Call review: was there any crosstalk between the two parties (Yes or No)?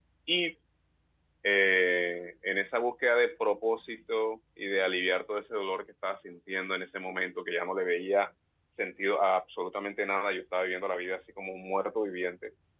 No